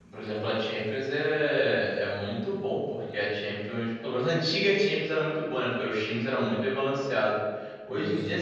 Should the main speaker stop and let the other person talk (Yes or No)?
No